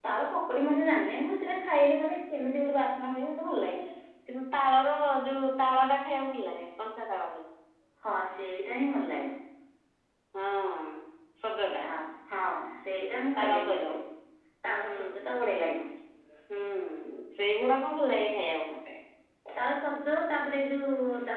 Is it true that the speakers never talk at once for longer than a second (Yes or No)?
Yes